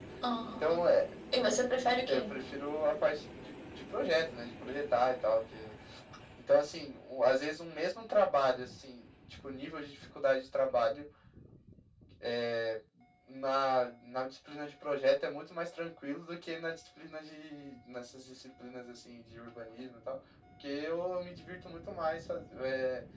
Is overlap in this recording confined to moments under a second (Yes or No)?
Yes